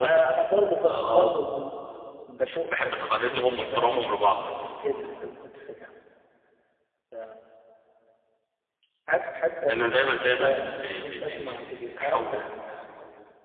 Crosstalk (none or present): present